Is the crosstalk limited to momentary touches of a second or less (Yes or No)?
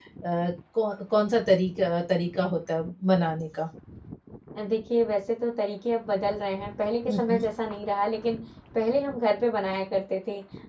Yes